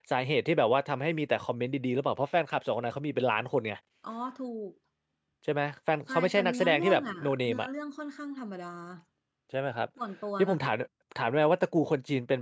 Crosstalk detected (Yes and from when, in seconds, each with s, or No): Yes, from 6.1 s